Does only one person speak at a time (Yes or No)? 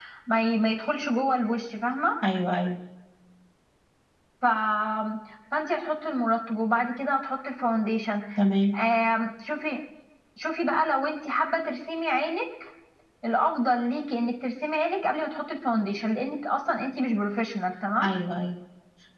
Yes